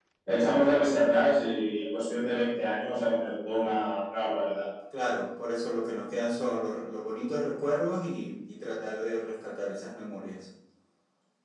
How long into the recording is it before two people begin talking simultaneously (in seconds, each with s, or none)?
none